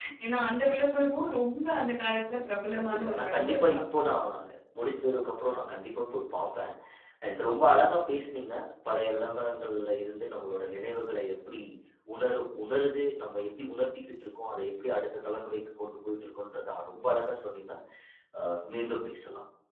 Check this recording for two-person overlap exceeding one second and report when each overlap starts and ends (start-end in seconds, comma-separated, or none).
2.1-3.8